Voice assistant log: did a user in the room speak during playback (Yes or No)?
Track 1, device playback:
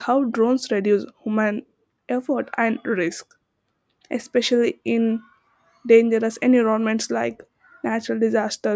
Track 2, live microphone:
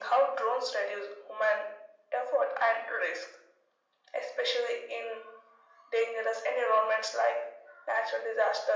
No